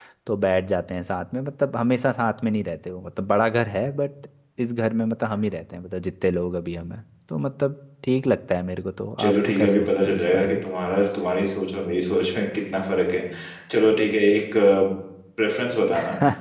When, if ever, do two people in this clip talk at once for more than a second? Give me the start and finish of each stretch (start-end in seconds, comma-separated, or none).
9.2-10.6